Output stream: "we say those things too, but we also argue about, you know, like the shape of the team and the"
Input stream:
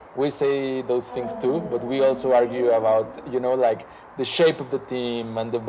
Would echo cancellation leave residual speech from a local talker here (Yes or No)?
Yes